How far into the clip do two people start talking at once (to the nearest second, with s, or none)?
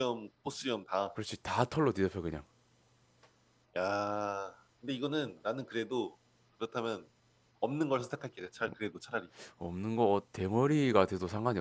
none